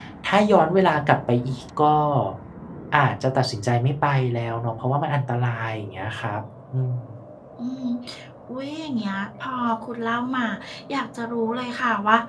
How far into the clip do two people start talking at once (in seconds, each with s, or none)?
none